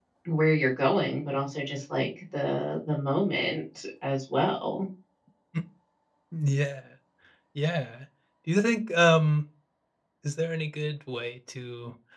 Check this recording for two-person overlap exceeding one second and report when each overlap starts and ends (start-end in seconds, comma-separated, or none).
none